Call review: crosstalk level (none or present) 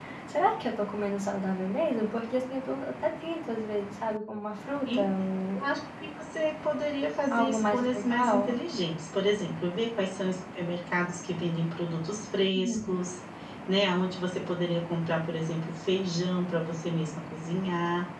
present